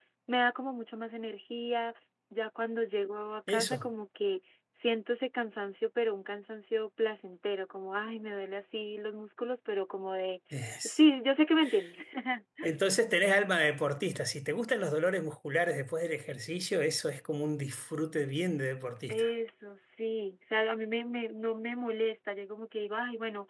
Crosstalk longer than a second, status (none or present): none